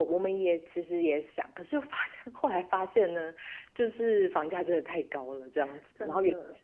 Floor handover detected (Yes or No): No